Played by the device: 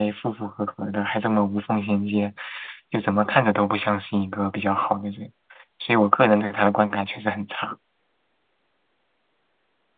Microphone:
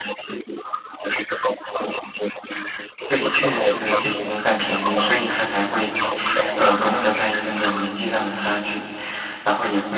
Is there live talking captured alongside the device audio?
Yes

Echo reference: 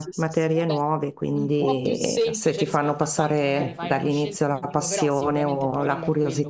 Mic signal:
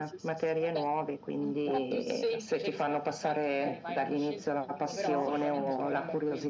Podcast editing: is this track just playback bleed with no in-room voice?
No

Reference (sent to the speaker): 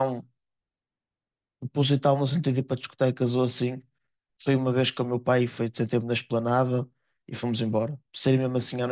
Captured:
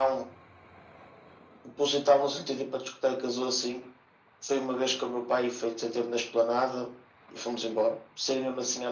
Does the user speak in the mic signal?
No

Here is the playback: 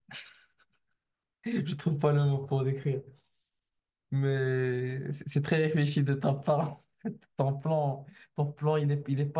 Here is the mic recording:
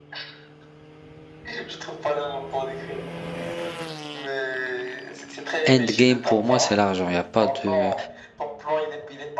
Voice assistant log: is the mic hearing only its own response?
No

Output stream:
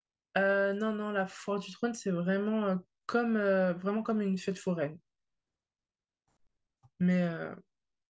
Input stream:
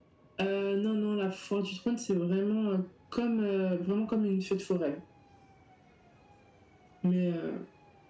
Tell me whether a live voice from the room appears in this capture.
No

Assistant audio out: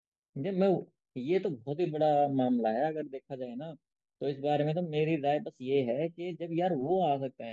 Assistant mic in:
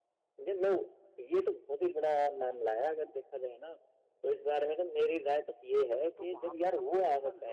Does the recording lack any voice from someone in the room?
No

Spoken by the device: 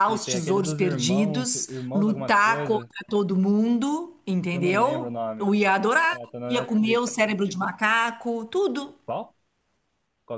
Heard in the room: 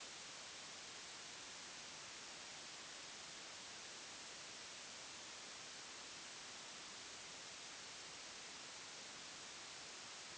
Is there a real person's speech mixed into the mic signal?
No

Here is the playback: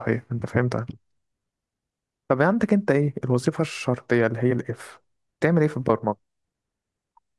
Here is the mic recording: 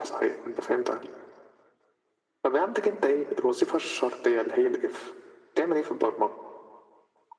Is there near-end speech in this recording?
No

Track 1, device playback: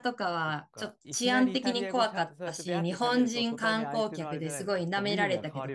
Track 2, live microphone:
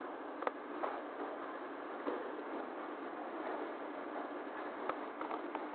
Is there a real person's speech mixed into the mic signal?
No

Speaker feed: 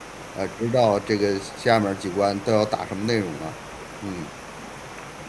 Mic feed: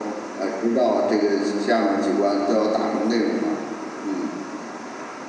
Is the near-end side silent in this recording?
Yes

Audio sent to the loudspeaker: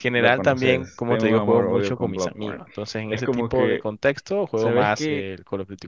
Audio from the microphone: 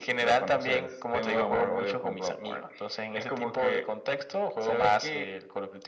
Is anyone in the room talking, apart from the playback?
No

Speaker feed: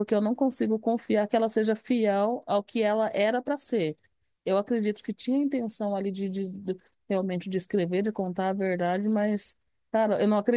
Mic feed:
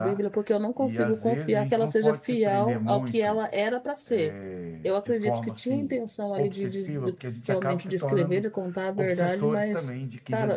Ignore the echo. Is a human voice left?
Yes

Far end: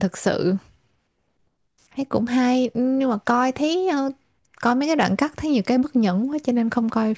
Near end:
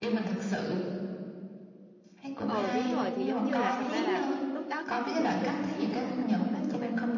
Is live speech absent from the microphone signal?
No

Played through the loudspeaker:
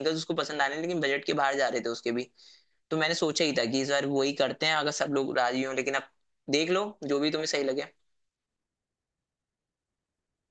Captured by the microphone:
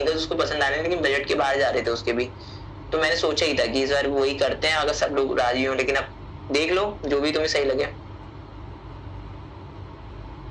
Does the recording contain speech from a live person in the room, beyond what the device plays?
No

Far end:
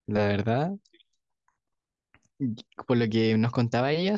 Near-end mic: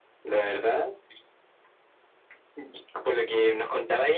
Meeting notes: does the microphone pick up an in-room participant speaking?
No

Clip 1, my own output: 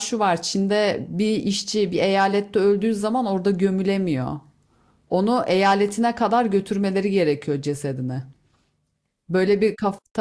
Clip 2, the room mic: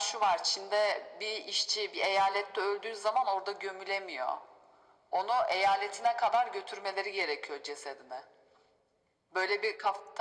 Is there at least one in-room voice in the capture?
No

